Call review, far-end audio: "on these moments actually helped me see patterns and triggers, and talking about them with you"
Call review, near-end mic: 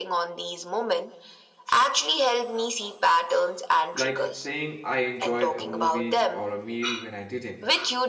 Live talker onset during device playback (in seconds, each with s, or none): 3.9 s